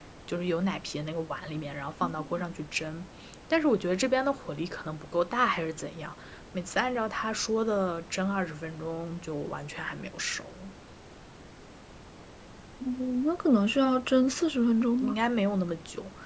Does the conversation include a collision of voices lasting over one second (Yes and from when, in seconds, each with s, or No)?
No